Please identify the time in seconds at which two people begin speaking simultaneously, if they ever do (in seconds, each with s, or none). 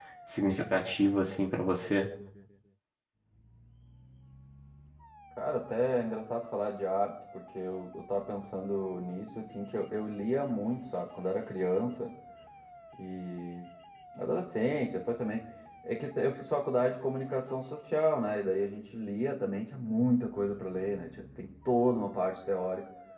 none